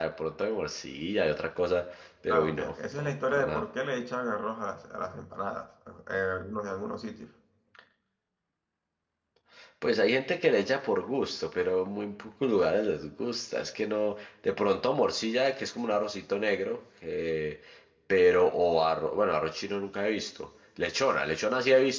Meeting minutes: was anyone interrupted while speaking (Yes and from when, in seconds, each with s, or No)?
Yes, from 2.3 s